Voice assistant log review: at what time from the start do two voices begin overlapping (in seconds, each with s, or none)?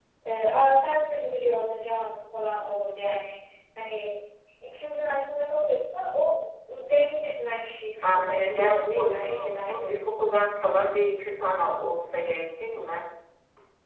8.0 s